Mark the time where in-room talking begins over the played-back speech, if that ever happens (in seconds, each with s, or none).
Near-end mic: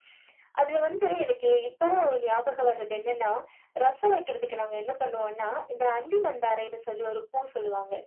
none